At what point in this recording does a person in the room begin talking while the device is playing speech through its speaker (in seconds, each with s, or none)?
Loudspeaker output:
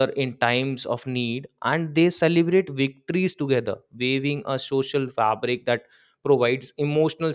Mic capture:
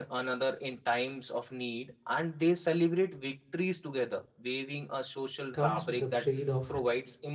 5.5 s